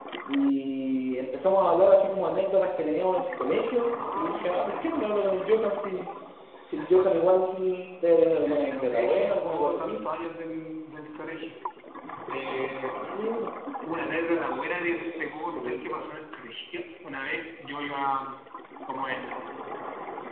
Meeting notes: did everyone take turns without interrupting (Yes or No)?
No